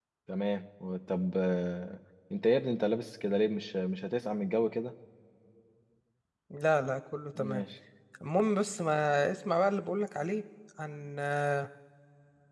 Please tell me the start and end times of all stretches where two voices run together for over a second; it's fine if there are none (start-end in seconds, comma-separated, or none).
none